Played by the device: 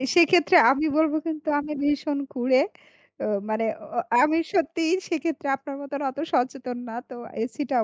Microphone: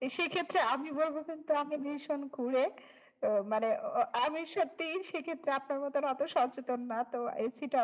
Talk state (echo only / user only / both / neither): echo only